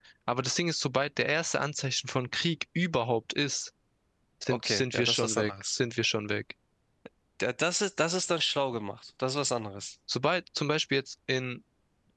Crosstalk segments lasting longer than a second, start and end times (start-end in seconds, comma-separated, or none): 4.5-5.8